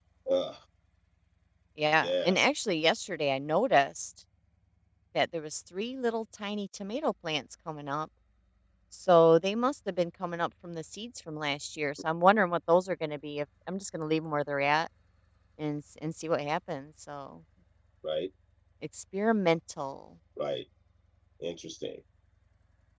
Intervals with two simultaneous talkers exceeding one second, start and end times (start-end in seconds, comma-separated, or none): none